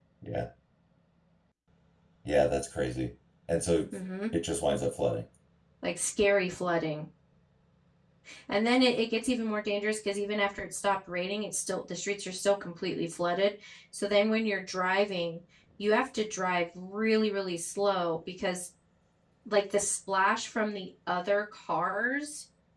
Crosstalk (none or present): none